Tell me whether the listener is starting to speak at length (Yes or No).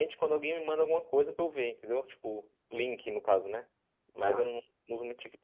No